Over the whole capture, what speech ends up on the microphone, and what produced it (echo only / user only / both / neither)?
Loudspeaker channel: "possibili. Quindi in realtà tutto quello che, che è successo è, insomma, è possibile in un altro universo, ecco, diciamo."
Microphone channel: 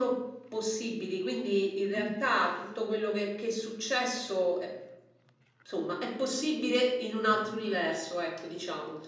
echo only